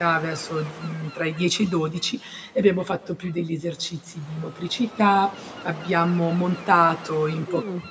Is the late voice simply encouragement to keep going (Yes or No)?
Yes